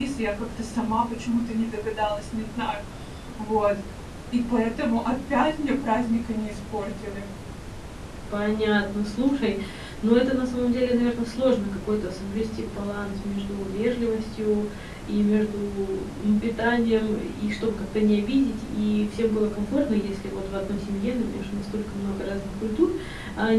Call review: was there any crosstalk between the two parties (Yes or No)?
No